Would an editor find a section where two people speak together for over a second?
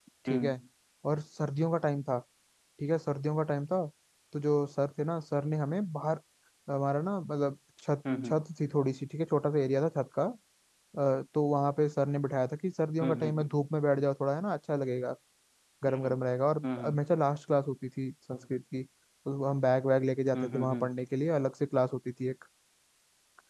No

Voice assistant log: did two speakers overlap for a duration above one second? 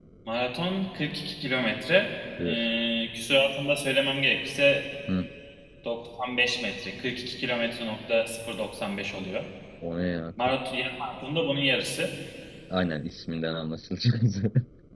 No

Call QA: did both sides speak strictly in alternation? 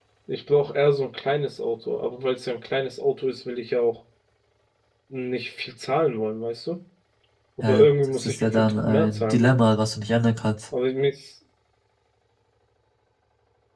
No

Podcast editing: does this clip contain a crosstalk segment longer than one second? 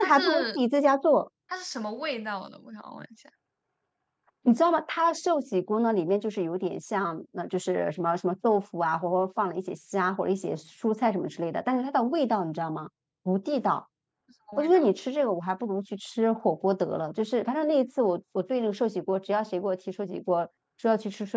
No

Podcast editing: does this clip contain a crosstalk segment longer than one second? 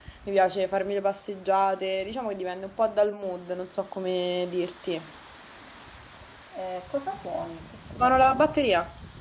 No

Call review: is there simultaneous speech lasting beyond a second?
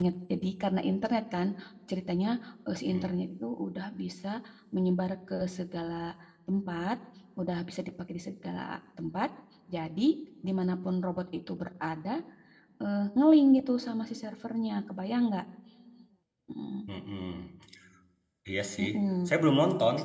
No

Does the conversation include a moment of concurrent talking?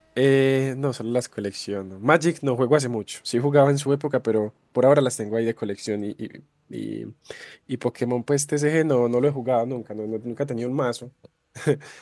No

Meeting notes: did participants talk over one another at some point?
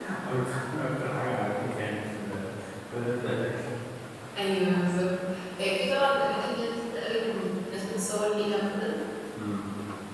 No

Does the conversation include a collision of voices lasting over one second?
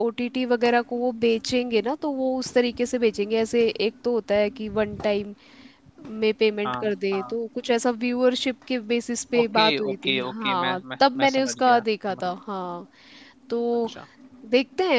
Yes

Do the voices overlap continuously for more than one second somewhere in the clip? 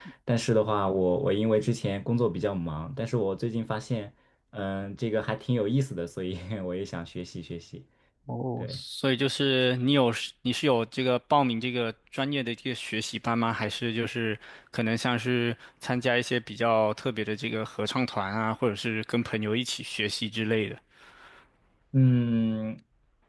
No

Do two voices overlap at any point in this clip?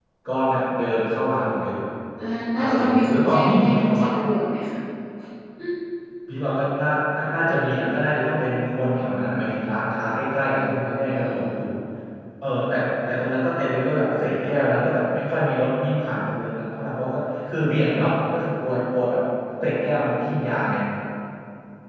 Yes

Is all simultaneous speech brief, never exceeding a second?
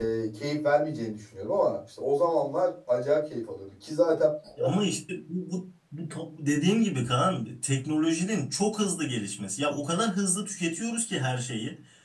Yes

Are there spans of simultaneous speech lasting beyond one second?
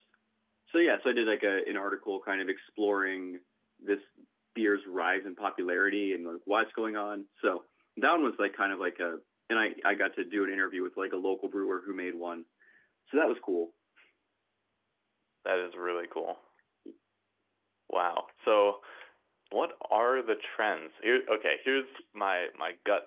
No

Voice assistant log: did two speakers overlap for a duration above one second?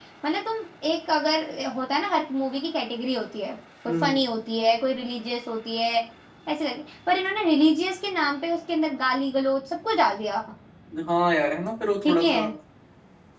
No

